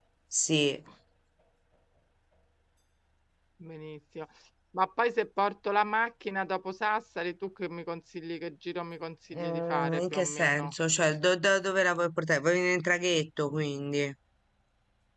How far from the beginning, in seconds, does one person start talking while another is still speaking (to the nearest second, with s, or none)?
9 s